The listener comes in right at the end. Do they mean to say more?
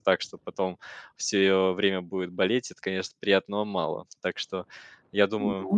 No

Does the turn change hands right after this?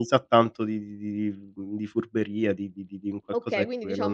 Yes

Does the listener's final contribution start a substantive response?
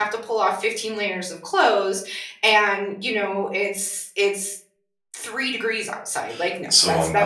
Yes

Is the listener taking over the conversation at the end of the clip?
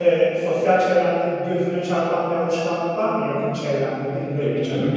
Yes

